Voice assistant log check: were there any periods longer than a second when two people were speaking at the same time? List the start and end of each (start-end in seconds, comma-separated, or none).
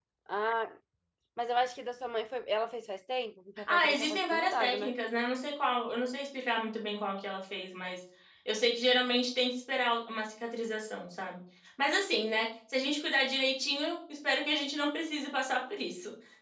3.7-4.9